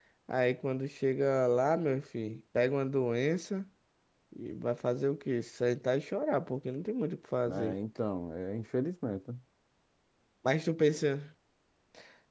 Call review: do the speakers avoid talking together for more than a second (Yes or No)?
Yes